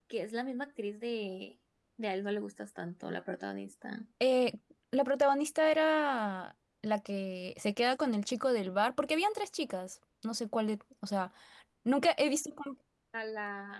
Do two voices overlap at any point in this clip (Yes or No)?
No